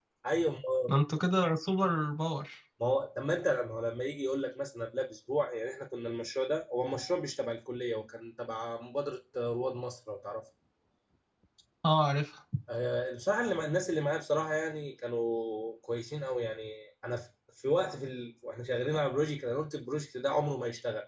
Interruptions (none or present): none